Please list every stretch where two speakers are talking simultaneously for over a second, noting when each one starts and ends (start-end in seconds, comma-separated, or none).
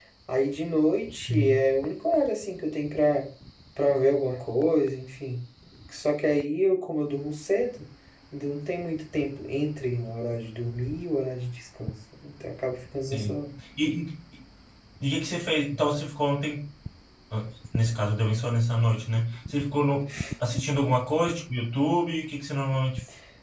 none